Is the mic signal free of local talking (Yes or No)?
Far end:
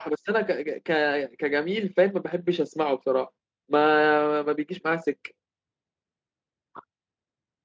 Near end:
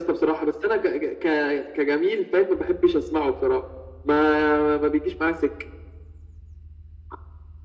Yes